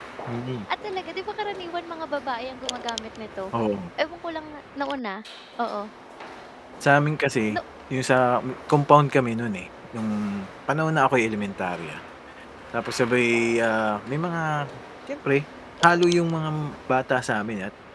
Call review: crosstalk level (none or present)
none